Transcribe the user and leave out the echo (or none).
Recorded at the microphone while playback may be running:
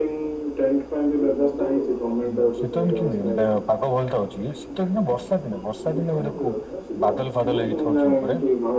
ହଁ ଶୀତ ଦିନେ କେମିତି ପାଗ ଭଲଟା ଅଛି କି? ଶୀତ ବର୍ଷା ଦିନେ ବର୍ଷା ଦିନେ ଗୋଟେ ବାଦଲ ଫାଦଲ ହେଇକିଥିବ ଉପରେ